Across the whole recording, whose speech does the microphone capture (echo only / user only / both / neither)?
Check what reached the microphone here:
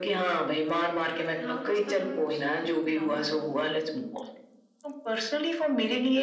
both